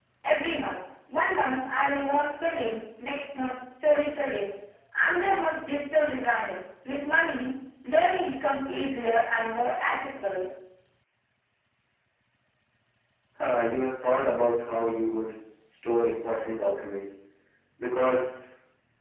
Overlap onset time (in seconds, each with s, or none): none